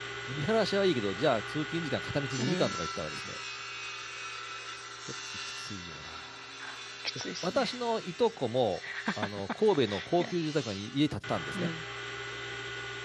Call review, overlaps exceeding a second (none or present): none